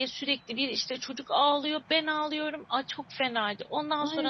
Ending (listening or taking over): taking over